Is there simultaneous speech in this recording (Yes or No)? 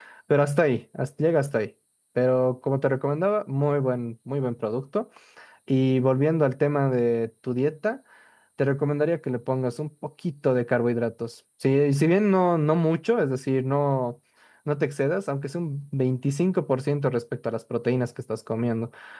No